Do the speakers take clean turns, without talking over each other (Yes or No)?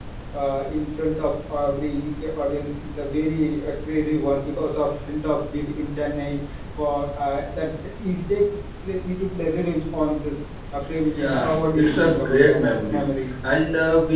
No